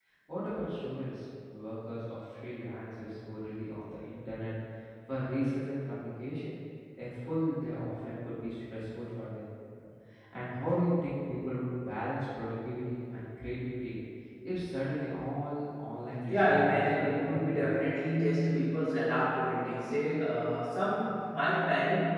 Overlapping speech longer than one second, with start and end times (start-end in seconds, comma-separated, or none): 16.3-17.7